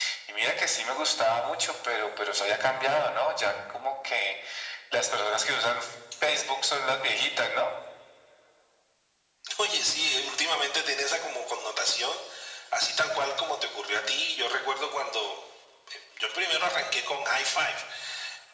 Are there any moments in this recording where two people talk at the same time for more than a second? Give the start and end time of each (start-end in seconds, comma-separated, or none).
none